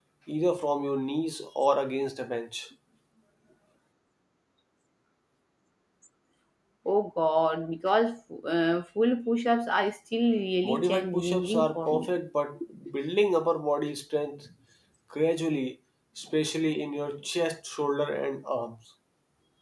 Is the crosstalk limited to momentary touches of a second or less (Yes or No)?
No